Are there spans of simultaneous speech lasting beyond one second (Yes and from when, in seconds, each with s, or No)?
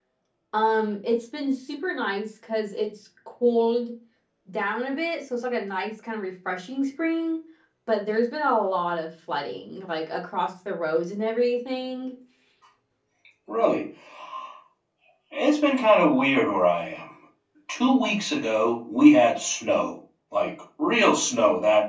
No